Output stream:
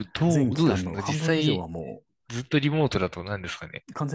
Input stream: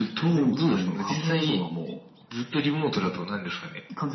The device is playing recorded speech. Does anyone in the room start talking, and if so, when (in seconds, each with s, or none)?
none